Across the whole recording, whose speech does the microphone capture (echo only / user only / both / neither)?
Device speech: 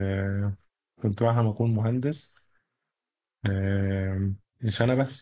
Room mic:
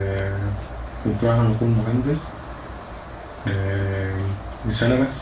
echo only